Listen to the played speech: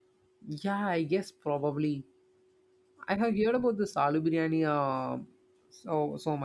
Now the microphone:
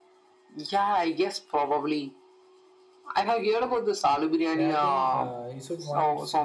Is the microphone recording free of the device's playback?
No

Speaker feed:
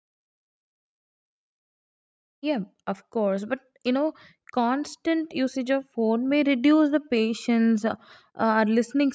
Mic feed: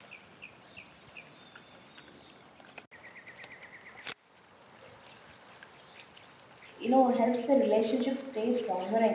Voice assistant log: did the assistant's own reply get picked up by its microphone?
No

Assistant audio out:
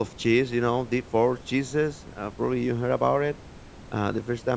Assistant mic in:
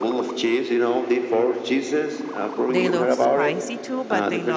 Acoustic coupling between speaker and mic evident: Yes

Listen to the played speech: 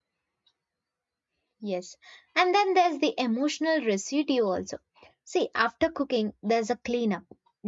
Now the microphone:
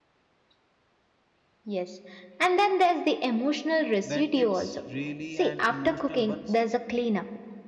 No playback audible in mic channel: No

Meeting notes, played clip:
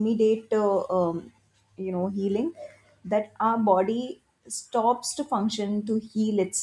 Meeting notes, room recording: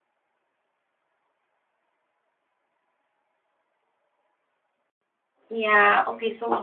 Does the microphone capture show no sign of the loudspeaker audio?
Yes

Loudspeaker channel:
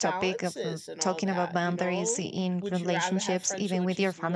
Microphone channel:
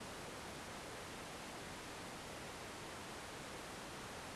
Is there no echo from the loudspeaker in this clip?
Yes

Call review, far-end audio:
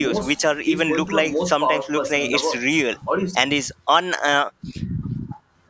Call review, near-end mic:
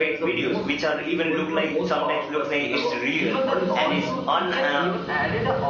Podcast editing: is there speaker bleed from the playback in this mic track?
Yes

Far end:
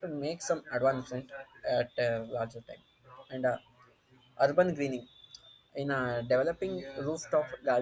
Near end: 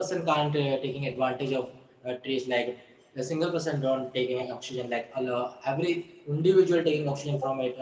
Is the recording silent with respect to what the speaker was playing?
Yes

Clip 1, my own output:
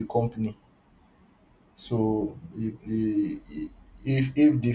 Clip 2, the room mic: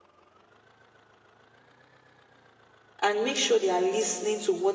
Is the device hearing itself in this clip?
No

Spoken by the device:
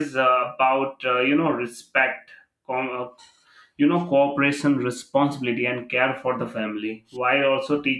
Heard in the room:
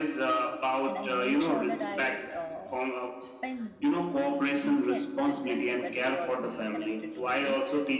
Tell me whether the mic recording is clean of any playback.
No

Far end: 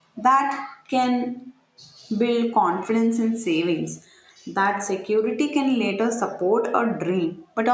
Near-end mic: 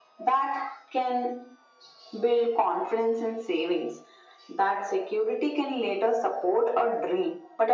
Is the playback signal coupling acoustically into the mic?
Yes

